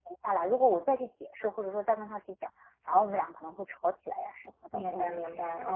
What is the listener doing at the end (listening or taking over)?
taking over